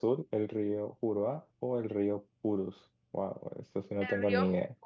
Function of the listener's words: taking over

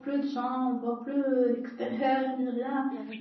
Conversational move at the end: listening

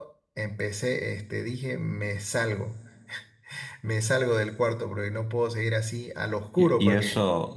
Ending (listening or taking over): taking over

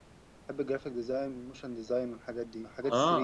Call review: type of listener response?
taking over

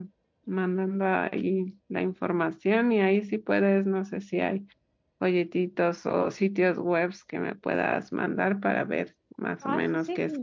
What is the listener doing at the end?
taking over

